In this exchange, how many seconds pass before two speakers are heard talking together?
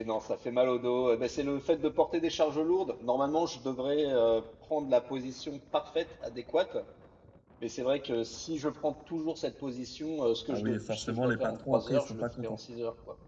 10 s

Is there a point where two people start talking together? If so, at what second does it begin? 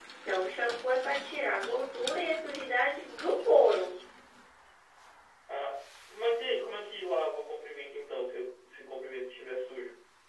none

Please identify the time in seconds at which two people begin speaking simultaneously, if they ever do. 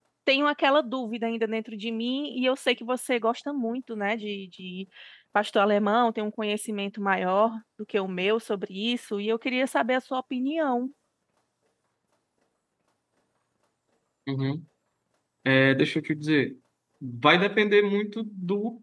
none

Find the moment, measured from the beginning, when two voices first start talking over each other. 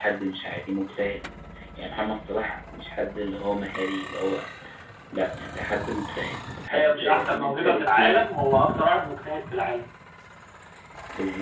7 s

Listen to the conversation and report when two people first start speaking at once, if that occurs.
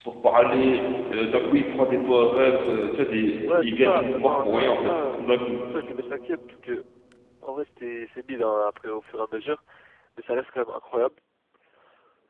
3 s

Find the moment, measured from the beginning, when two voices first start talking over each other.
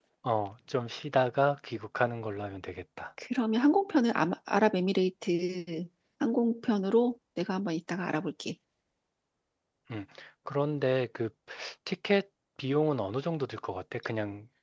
none

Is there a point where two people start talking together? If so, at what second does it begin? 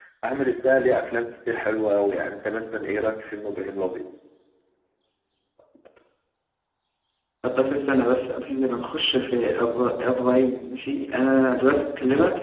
none

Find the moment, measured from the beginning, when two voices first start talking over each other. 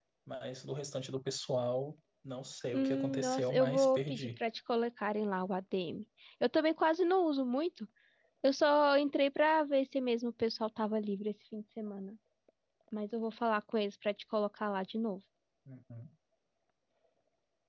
3 s

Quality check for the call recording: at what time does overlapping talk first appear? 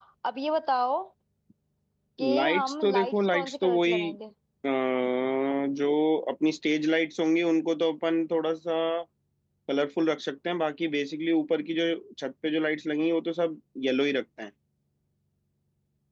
2 s

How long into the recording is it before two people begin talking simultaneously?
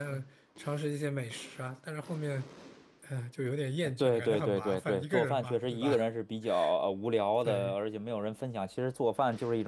4 s

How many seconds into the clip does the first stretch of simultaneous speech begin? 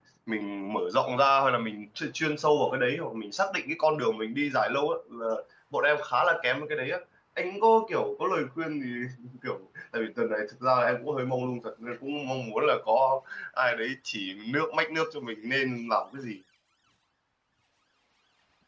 none

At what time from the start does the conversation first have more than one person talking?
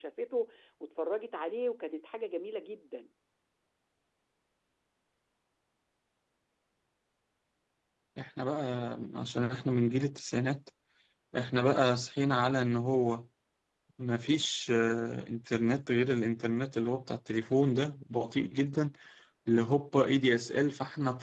none

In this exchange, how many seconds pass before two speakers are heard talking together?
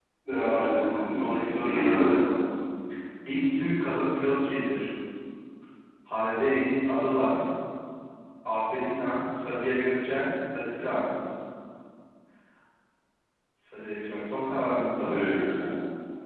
1 s

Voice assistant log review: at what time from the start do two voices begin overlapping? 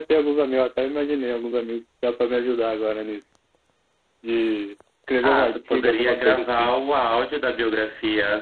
5 s

